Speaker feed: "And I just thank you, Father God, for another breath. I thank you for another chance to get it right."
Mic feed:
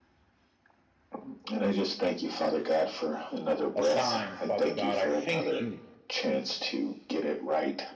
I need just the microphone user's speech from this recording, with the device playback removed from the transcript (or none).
assigned, Father God. I thank you